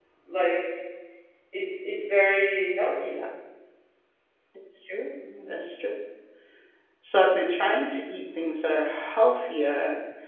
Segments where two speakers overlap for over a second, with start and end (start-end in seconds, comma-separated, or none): none